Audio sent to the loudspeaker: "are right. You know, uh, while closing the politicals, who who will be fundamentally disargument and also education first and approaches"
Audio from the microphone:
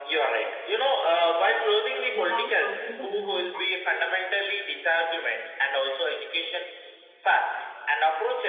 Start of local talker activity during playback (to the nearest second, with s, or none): 2 s